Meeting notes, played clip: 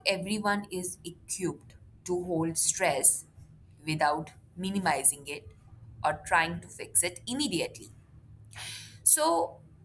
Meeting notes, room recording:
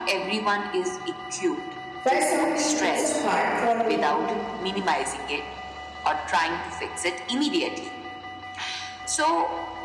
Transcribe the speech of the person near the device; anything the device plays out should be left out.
Why something it's a hard for me.

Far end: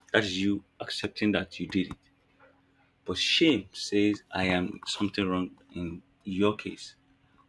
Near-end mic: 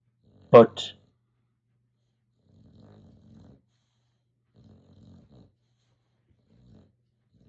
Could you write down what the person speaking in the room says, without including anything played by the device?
but

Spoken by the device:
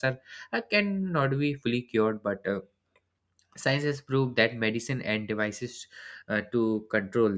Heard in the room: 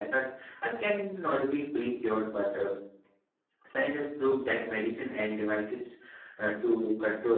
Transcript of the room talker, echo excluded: none

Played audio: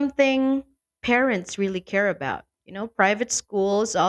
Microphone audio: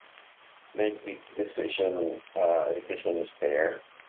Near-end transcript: make the decision uh, education is fair,

